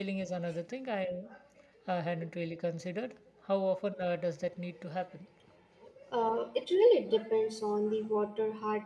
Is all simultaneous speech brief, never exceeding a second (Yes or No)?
Yes